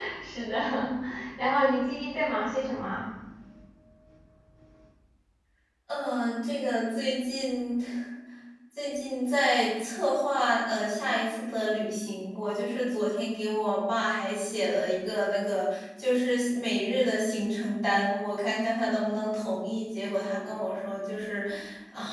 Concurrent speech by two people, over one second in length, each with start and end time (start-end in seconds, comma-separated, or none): none